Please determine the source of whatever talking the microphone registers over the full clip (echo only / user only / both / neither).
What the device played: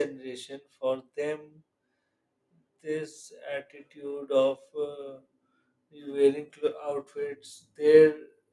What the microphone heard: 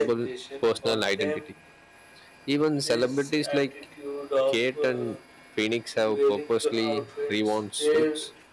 both